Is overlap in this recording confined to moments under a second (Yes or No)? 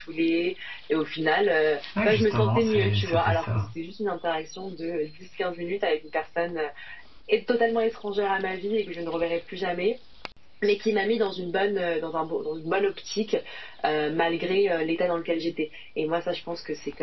No